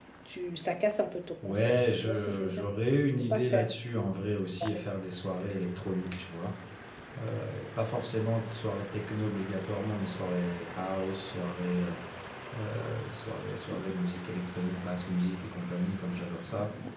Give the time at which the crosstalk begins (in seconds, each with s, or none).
1.4 s